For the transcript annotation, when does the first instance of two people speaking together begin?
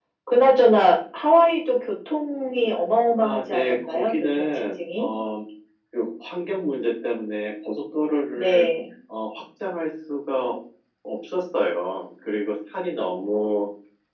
3 s

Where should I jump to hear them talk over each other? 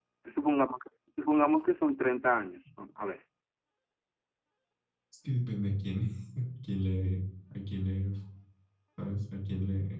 none

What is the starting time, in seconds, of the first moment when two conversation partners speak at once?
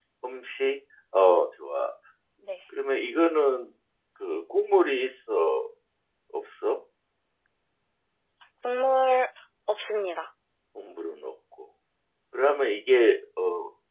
none

